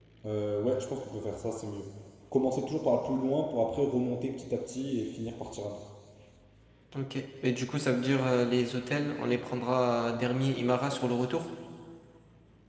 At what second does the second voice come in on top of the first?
none

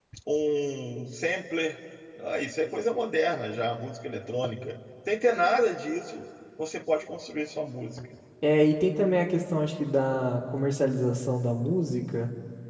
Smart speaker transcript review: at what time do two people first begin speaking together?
none

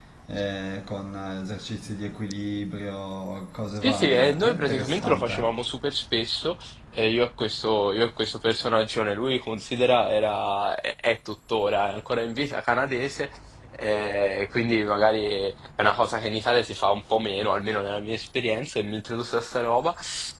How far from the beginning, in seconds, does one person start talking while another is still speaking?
3.8 s

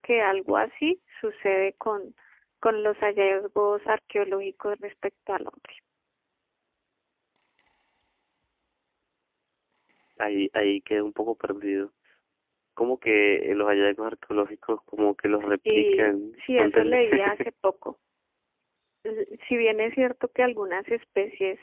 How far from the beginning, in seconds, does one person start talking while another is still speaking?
15.5 s

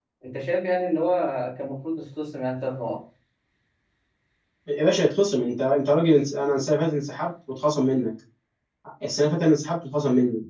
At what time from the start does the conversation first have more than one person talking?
none

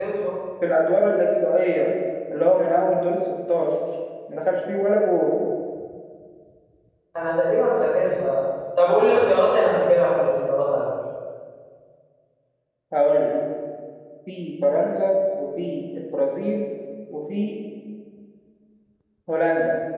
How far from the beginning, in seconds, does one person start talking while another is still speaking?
none

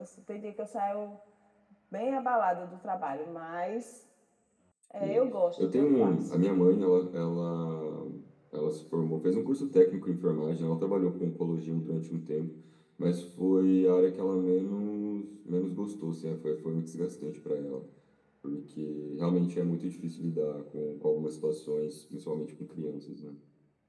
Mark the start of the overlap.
5.0 s

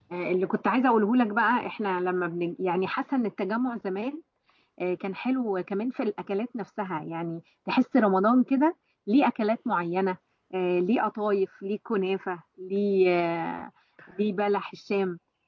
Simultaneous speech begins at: none

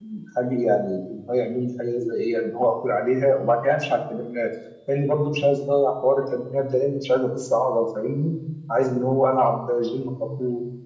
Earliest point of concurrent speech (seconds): none

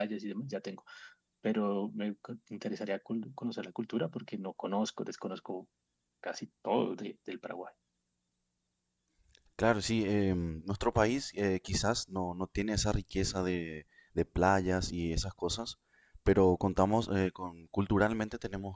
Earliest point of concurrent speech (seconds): none

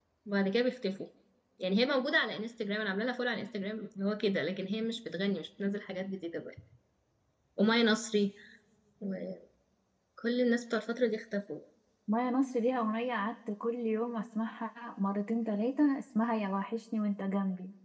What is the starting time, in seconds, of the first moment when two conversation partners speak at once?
none

